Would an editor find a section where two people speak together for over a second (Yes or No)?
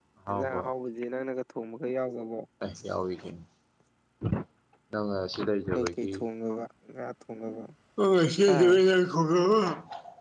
No